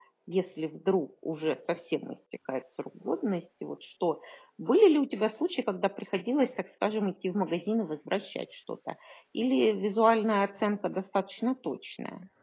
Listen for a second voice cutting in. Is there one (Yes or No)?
No